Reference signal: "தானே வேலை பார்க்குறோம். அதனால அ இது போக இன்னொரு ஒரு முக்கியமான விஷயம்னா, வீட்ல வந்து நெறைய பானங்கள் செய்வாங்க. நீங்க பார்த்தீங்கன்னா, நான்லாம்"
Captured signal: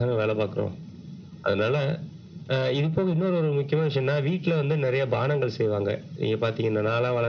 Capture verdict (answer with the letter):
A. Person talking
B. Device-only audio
B